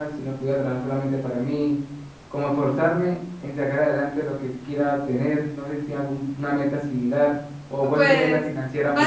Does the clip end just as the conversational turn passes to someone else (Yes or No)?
Yes